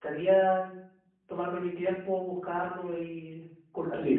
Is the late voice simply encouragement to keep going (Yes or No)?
No